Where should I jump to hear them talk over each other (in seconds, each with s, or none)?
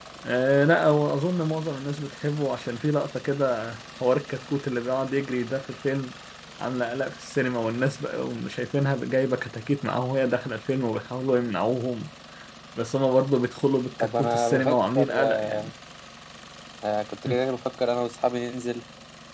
14.0 s